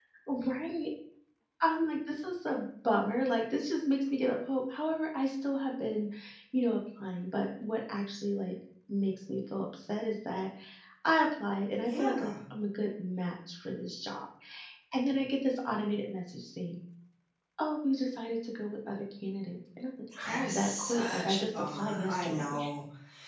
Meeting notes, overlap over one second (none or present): present